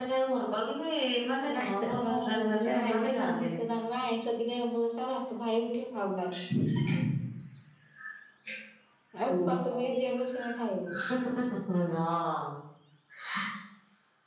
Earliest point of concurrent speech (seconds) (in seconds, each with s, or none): 1.5 s